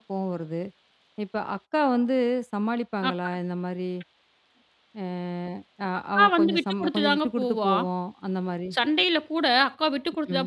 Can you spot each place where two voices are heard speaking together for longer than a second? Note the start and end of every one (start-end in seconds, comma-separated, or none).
6.2-7.7